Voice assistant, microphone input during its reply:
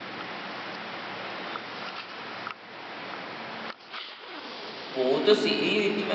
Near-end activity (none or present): present